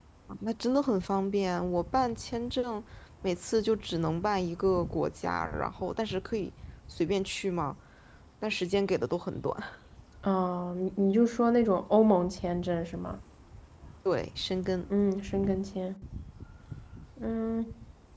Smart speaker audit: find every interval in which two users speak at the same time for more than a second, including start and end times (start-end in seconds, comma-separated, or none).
none